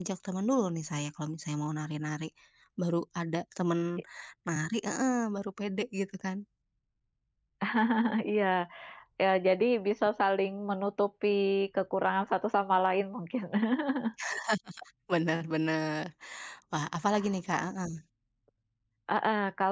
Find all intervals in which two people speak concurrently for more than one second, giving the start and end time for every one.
none

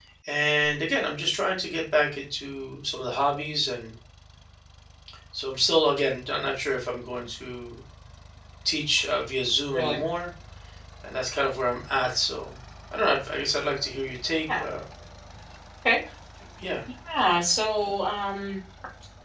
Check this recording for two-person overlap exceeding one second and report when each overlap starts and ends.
none

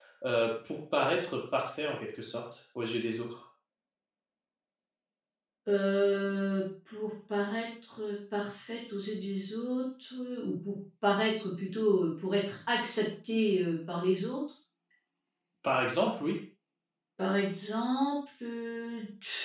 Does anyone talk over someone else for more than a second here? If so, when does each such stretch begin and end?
none

